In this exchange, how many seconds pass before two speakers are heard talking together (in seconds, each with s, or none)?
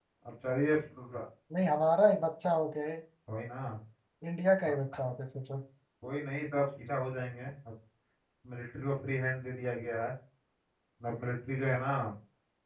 none